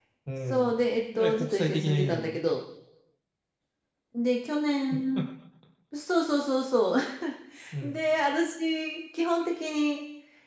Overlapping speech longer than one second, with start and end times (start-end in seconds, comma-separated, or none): 1.1-2.4